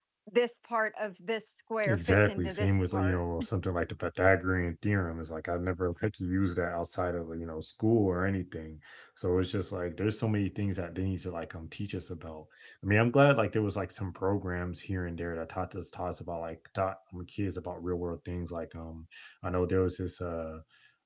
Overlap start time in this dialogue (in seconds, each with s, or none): 1.8 s